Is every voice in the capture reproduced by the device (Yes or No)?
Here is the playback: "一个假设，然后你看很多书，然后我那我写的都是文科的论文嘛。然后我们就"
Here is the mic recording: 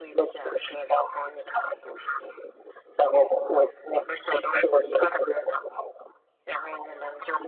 Yes